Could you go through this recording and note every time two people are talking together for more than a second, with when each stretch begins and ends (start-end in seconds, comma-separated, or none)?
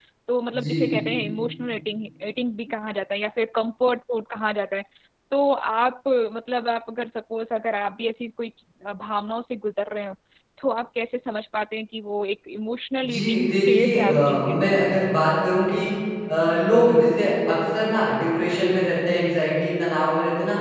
13.0-14.8